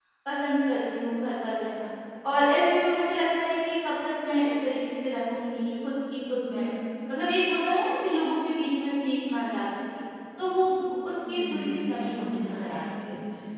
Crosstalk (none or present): present